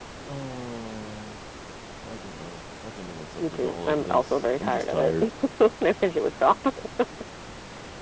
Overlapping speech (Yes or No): Yes